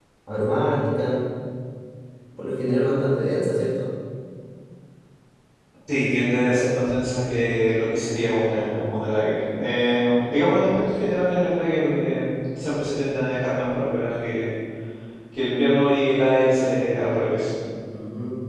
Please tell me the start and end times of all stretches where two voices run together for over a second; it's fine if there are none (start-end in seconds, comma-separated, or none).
none